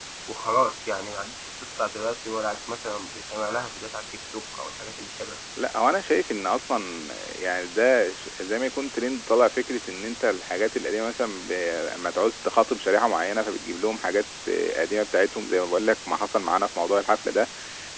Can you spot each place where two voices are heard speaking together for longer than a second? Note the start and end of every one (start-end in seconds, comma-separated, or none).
none